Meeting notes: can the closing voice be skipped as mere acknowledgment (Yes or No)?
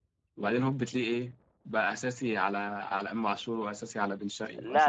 No